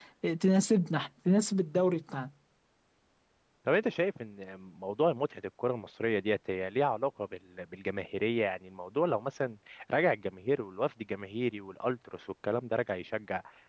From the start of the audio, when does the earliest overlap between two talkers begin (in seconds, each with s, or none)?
none